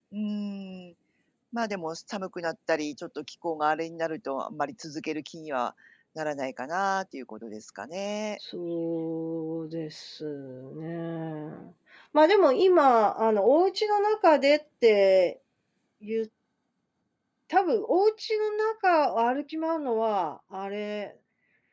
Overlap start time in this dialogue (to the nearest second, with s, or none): none